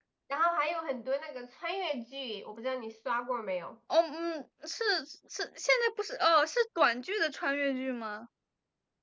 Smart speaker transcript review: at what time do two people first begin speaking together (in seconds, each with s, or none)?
none